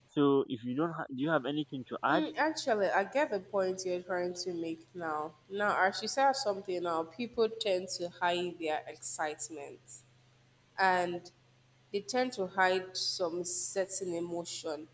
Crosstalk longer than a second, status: none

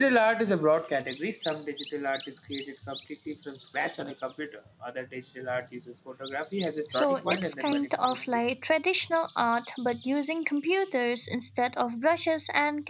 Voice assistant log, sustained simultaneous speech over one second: present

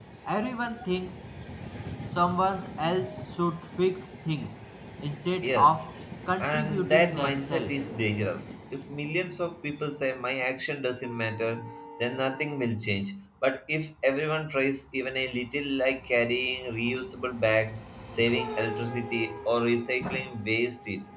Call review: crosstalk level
present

